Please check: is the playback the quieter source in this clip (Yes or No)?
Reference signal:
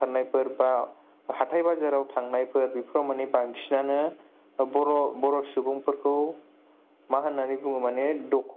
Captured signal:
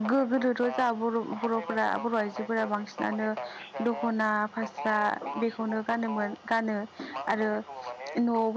Yes